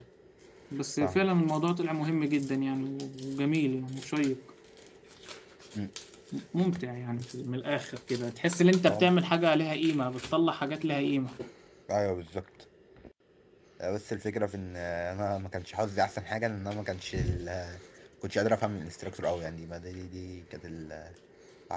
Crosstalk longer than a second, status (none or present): none